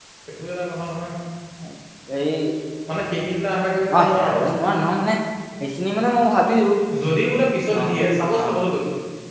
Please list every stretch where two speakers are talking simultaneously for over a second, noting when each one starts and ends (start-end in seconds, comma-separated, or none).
none